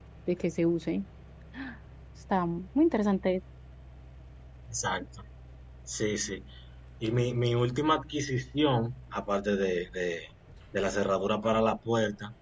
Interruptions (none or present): none